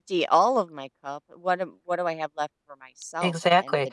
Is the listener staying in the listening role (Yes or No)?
No